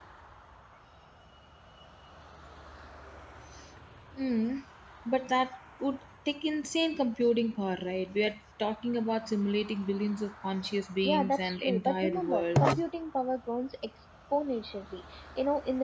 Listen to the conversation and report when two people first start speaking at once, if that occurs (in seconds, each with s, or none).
11.0 s